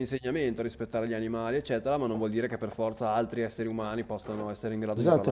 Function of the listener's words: taking over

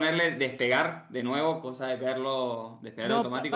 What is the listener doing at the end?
taking over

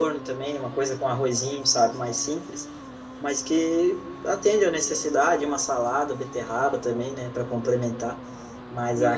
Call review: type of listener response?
taking over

